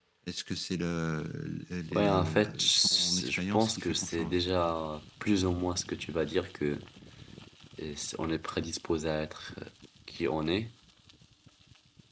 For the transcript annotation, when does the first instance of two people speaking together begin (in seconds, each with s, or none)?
1.9 s